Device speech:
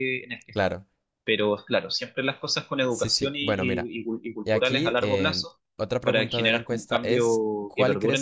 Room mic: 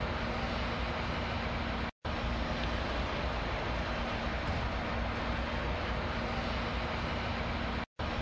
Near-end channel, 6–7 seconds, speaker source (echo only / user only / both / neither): neither